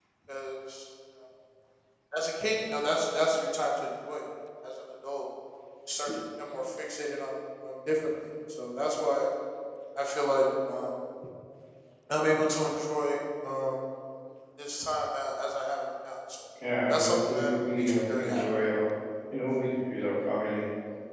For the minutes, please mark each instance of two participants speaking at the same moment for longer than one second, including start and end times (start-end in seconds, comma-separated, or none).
16.9-18.4